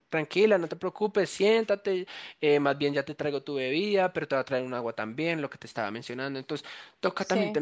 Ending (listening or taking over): listening